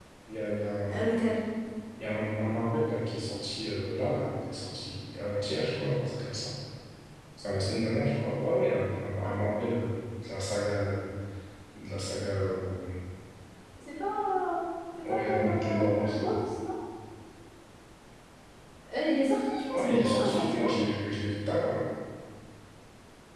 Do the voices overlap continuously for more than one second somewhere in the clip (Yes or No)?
Yes